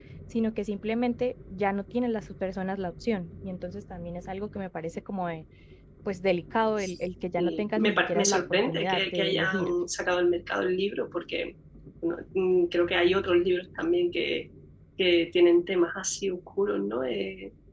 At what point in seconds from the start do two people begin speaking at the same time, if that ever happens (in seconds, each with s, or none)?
7.4 s